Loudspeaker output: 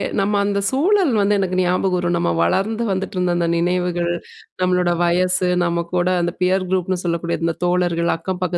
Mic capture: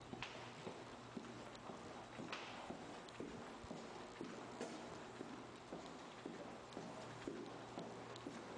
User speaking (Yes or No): No